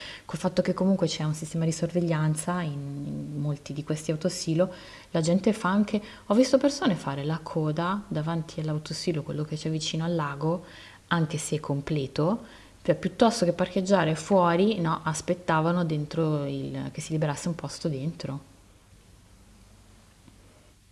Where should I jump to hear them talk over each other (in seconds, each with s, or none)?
none